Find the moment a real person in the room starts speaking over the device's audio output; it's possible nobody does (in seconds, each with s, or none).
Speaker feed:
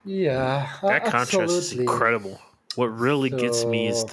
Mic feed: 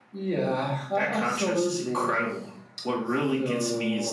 none